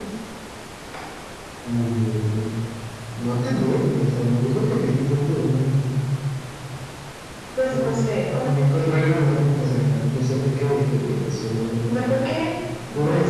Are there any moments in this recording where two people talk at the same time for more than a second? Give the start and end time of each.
none

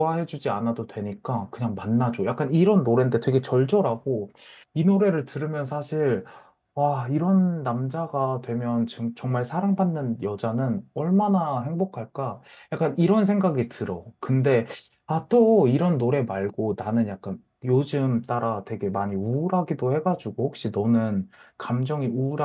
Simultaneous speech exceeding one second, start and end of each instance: none

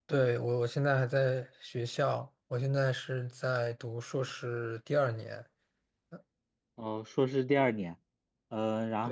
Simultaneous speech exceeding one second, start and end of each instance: none

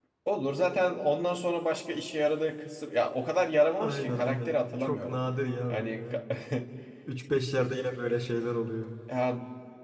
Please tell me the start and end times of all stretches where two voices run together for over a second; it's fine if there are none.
3.6-5.2

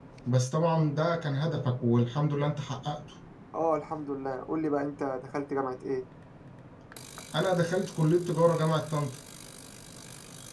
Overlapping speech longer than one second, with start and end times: none

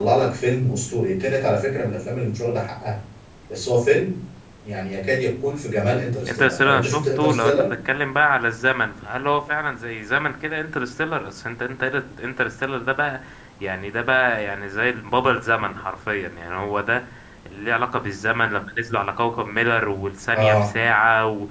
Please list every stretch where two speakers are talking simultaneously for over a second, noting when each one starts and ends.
6.3-7.6

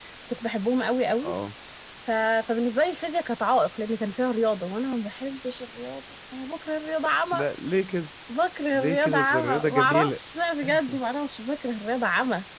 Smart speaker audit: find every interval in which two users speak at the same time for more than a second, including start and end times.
8.7-10.2

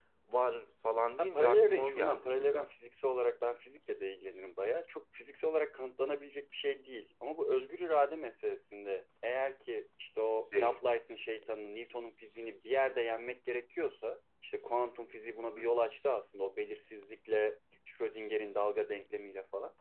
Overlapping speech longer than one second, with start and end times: 1.2-2.7

